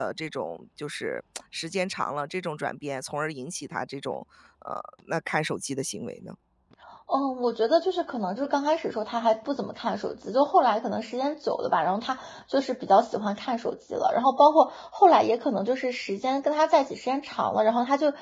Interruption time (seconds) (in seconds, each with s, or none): none